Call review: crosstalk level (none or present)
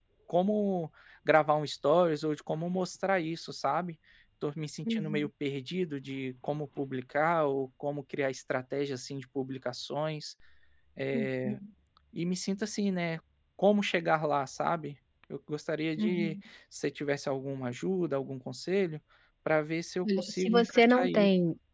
present